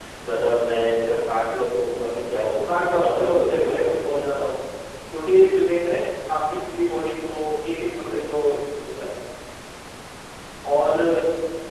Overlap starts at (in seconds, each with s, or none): 2.7 s